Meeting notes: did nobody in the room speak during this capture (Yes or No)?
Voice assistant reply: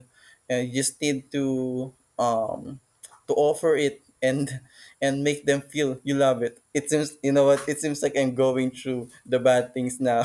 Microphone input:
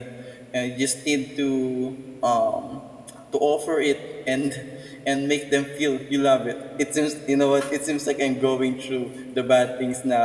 Yes